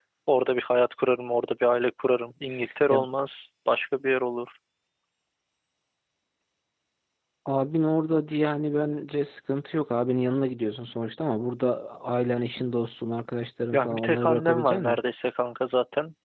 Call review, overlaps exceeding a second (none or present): present